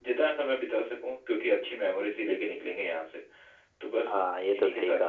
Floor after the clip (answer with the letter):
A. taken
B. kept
A